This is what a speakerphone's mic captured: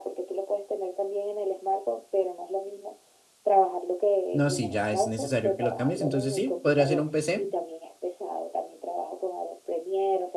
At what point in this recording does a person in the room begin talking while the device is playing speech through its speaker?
4.3 s

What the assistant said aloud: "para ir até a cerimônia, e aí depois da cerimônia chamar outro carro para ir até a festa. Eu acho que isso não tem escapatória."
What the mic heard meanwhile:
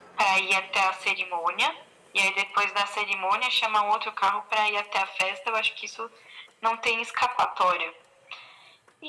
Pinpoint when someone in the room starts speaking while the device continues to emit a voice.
none

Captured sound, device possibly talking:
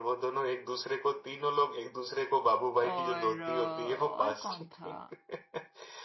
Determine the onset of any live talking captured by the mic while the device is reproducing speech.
2.8 s

